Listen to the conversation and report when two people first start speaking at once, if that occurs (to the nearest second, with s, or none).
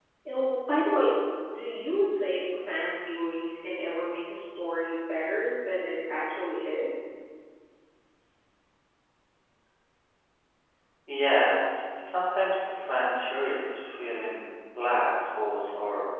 none